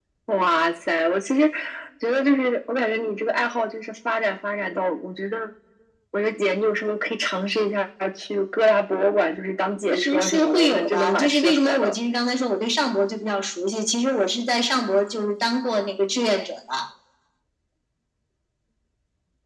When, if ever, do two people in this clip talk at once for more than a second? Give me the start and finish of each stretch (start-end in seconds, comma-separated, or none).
9.9-11.9